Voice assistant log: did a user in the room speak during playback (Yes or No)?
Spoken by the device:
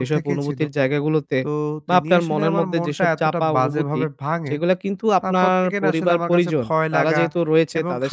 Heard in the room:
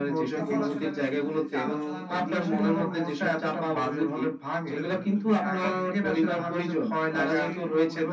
Yes